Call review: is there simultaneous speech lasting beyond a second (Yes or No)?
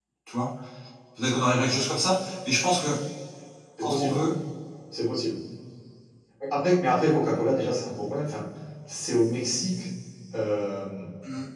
No